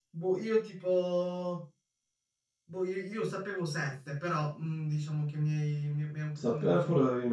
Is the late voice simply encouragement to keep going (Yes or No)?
No